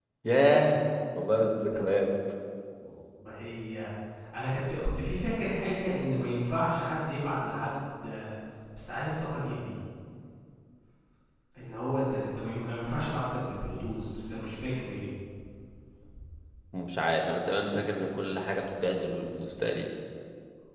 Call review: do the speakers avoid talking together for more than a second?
Yes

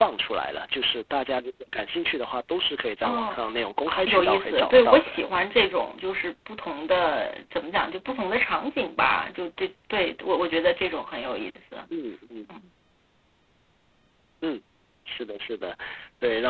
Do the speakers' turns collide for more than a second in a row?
Yes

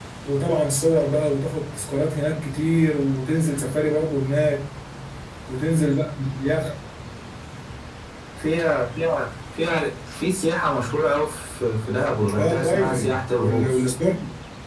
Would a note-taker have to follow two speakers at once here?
Yes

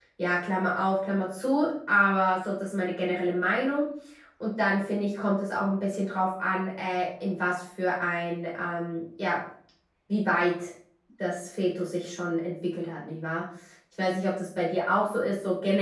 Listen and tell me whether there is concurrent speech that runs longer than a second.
No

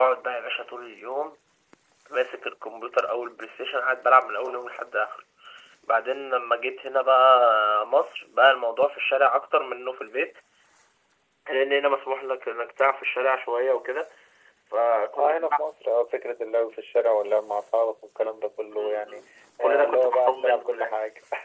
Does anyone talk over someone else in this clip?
Yes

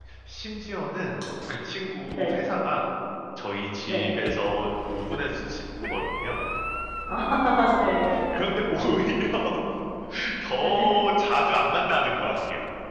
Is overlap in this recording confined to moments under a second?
Yes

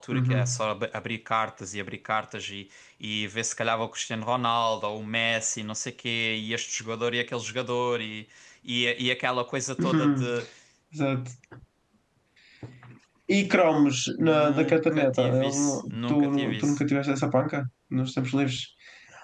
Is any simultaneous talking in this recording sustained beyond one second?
Yes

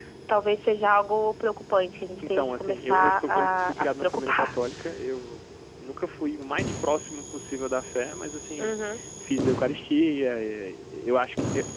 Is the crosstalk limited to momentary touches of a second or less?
No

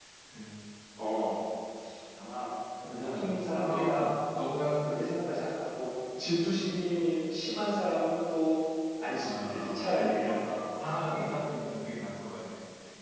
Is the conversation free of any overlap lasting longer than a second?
No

